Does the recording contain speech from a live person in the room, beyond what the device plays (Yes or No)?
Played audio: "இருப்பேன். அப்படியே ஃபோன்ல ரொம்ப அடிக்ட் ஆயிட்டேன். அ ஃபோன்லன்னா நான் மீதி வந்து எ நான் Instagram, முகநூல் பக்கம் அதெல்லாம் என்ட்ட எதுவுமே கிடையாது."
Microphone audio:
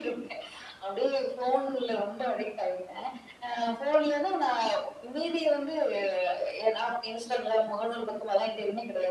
No